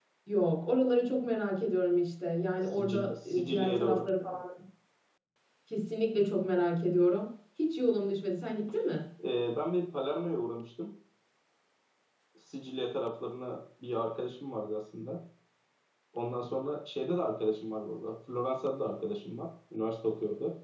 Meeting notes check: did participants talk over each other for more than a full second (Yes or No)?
Yes